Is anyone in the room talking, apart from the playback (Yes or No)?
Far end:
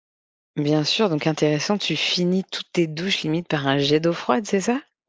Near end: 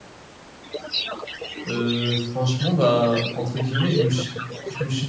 Yes